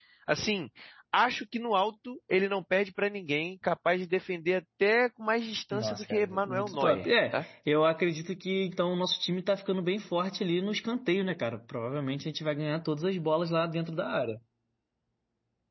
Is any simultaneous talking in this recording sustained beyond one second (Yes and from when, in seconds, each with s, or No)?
Yes, from 5.7 s